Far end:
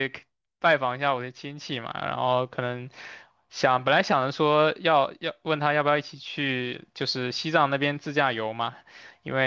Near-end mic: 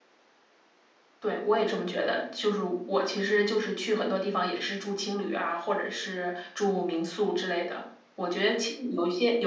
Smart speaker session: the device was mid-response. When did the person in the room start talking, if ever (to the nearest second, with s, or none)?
1 s